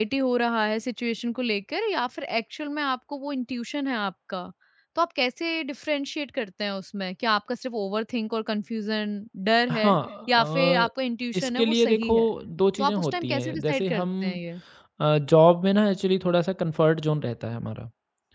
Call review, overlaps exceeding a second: present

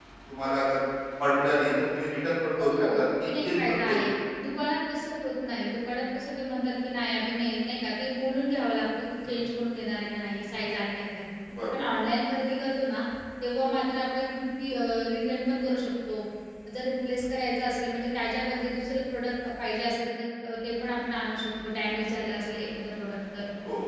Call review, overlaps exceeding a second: present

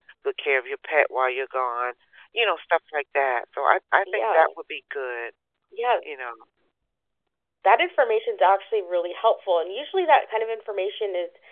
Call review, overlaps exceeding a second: none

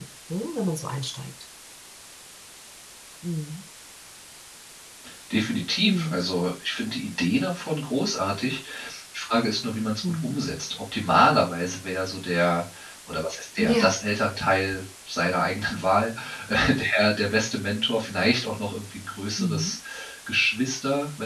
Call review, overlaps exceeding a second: none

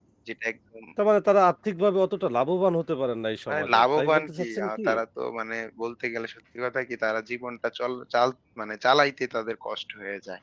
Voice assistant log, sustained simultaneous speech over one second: present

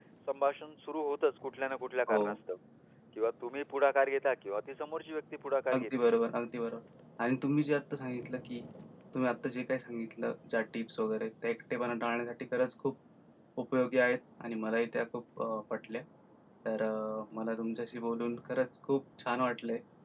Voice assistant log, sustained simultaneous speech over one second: none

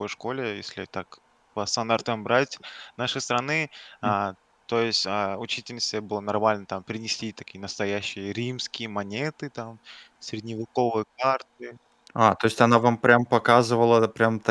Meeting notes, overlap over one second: none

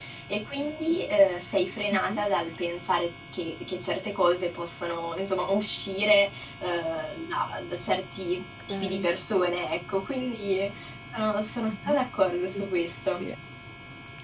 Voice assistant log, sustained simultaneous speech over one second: none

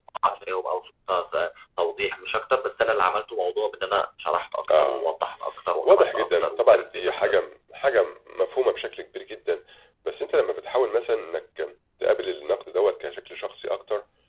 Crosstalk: present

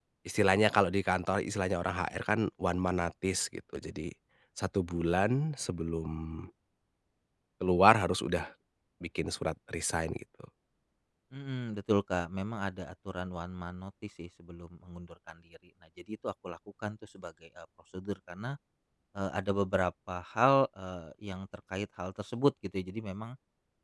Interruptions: none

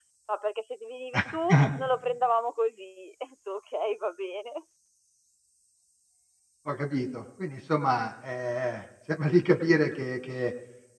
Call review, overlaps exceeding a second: none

